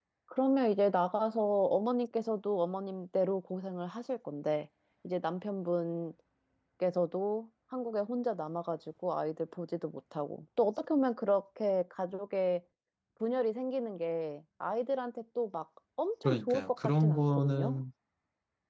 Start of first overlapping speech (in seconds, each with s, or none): 16.2 s